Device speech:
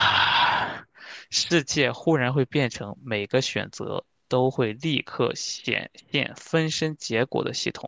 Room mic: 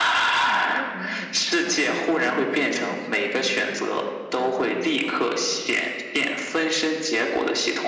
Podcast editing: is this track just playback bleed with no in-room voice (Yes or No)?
No